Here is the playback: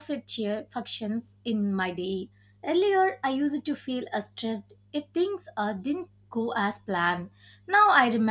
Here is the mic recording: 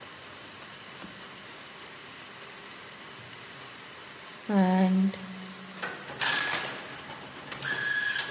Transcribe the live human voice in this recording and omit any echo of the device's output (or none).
and